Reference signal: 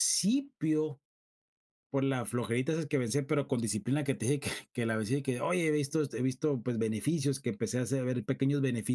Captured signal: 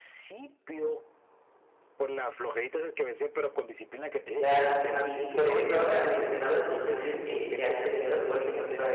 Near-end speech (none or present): present